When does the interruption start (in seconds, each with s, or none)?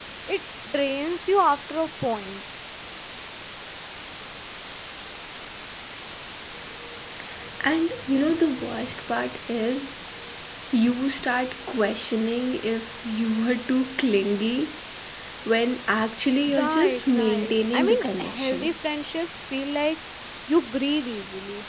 16.5 s